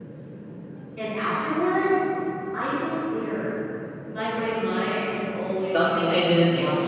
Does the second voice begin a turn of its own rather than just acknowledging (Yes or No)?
Yes